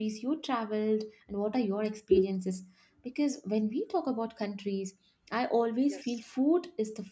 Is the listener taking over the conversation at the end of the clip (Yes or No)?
No